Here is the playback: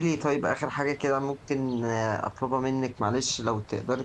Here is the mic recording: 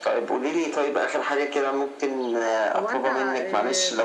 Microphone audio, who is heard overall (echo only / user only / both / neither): both